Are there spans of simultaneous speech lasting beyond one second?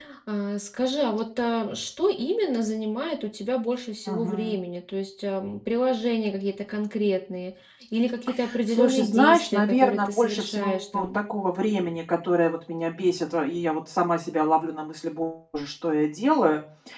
Yes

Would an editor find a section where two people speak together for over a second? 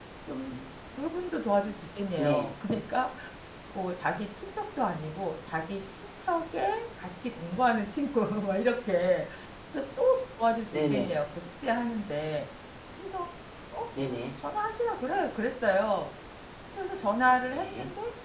No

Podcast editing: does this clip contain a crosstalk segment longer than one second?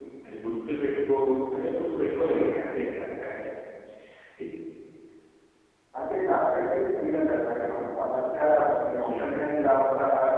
No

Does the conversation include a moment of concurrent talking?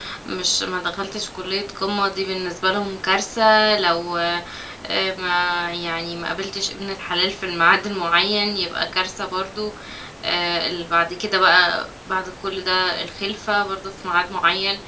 No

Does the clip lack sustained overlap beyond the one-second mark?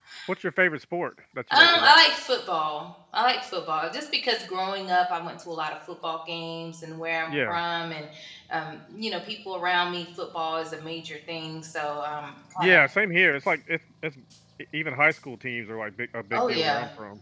Yes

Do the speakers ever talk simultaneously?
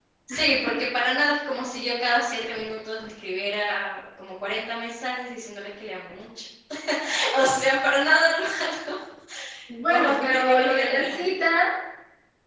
Yes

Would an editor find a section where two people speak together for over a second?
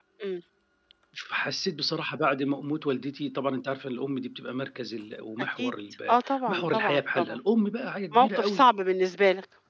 Yes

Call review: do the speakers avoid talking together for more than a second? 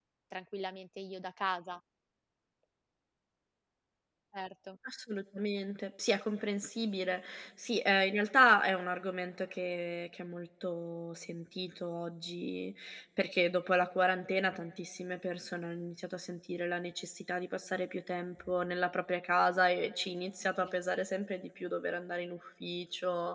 Yes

